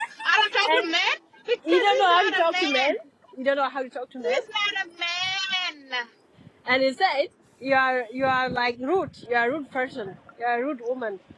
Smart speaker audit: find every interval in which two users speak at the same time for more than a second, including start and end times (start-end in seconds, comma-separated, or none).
1.7-2.9